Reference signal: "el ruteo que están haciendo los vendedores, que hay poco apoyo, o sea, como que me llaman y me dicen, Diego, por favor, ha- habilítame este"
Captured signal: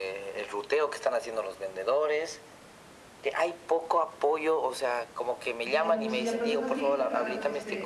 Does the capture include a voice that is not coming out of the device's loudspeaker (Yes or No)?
Yes